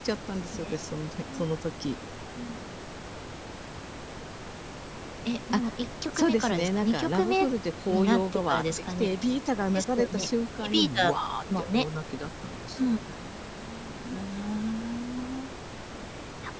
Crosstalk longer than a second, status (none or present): present